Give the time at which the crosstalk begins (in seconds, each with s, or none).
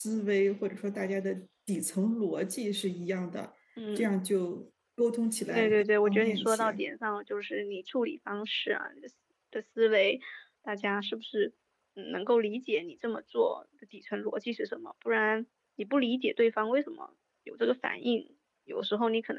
5.5 s